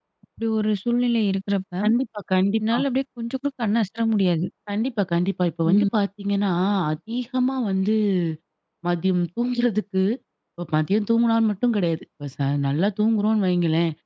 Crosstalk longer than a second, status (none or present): none